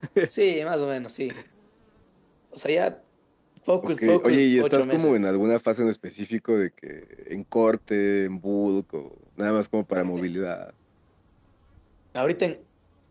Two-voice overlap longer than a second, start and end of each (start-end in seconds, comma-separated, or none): 4.0-5.3